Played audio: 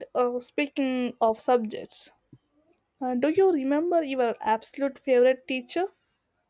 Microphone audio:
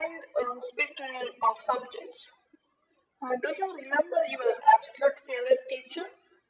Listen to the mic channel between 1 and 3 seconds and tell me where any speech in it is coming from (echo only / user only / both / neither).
echo only